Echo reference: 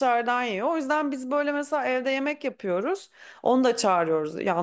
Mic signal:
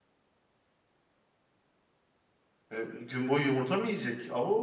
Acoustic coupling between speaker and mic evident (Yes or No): No